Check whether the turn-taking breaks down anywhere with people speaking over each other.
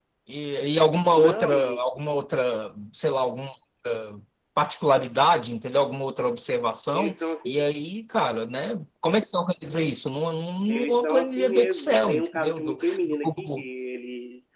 Yes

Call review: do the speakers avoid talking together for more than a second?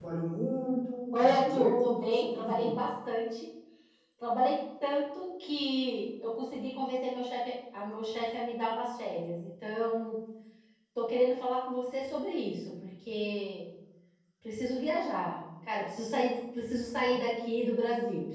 No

